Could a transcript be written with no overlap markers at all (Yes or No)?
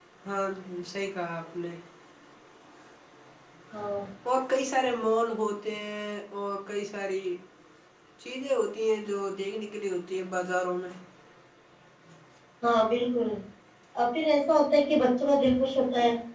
Yes